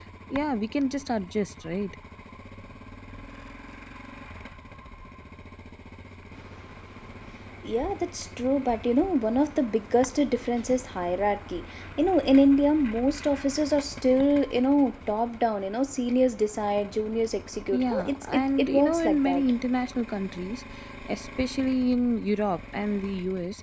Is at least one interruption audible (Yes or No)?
Yes